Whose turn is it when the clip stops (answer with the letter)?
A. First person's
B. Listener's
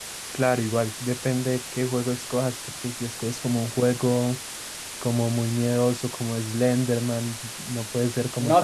B